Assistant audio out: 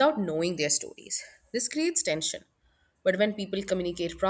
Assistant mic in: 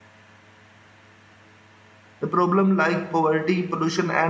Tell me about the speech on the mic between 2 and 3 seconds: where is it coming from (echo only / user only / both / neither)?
user only